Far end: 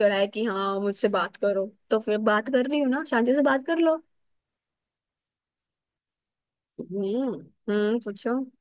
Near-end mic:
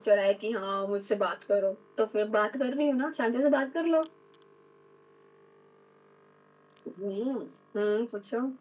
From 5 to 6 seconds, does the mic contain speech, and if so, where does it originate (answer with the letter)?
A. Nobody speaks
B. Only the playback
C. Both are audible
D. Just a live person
A